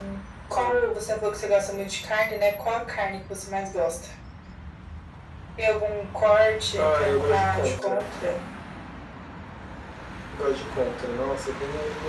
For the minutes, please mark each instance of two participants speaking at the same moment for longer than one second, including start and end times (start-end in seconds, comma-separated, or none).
6.8-8.0